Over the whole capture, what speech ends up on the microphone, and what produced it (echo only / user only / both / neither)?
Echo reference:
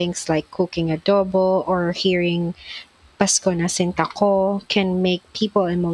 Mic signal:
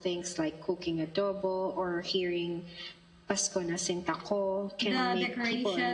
both